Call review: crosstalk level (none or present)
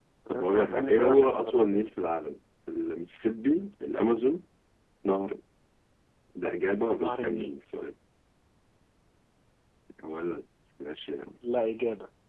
present